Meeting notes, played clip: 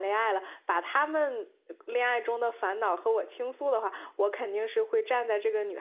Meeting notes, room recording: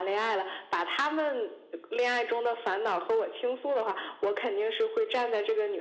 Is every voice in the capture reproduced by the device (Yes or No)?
Yes